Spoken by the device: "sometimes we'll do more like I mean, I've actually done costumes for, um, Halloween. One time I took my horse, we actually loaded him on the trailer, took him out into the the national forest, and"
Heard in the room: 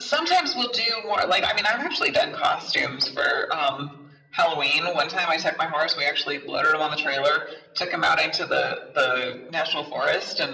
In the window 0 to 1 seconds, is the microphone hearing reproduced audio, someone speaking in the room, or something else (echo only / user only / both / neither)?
echo only